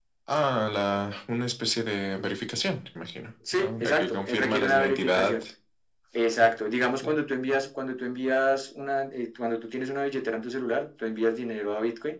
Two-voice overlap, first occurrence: 3.5 s

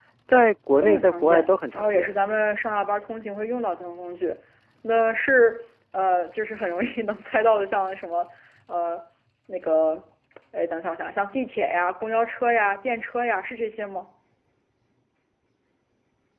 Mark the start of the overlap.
0.8 s

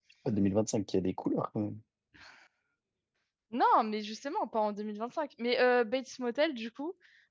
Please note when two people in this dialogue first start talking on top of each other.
none

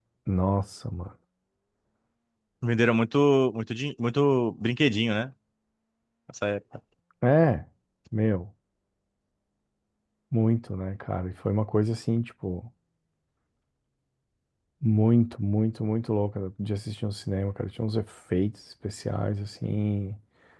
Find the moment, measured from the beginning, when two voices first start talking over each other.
none

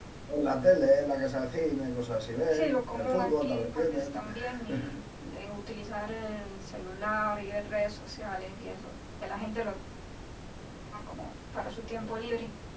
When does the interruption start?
2.5 s

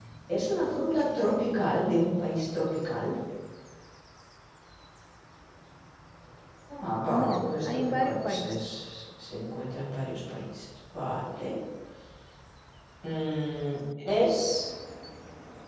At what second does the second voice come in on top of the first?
7.1 s

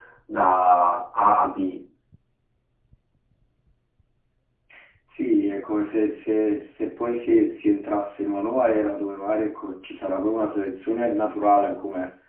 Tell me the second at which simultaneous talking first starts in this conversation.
none

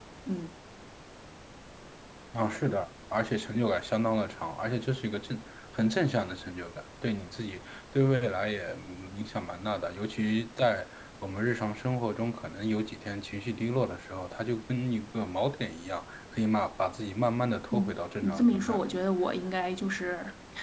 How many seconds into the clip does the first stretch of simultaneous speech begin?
17.7 s

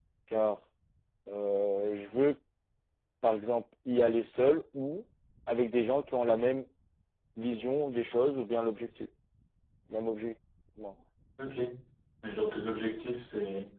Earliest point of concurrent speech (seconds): none

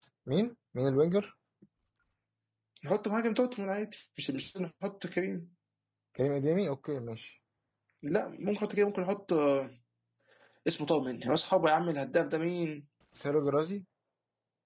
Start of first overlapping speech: none

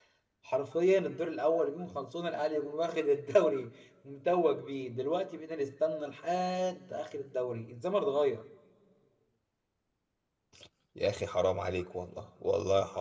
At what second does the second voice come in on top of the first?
none

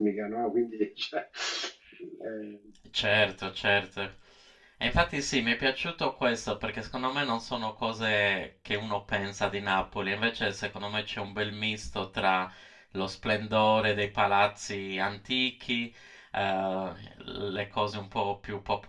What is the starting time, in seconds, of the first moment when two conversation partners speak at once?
none

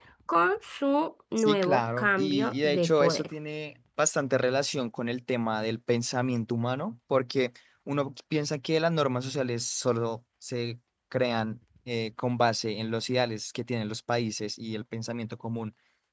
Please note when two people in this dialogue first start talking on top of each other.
1.4 s

